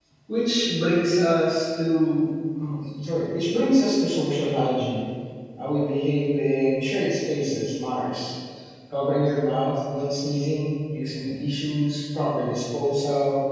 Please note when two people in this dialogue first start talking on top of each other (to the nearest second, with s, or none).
none